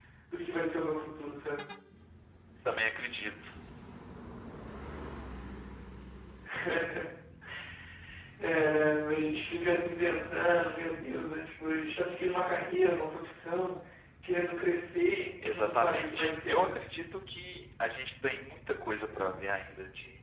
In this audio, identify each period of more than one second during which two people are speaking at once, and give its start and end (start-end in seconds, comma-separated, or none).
15.4-16.7